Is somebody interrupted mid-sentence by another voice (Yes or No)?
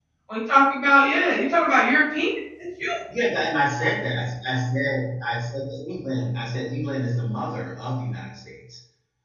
No